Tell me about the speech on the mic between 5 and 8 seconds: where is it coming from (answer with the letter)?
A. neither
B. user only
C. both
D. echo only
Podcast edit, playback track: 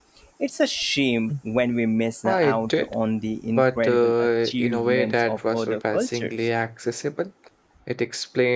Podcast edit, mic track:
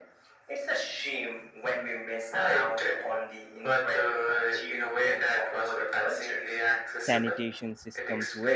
C